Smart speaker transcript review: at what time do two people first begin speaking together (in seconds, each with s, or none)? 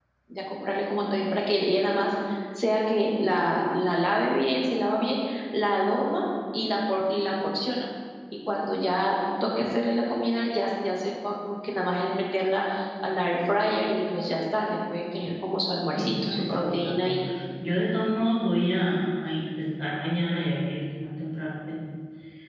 15.9 s